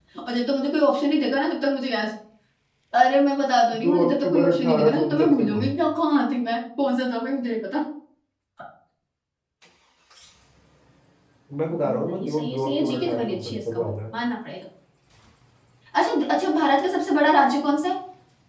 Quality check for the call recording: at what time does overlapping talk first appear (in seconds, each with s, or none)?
3.8 s